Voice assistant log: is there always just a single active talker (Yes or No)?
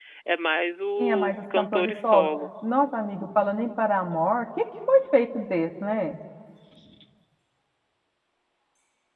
No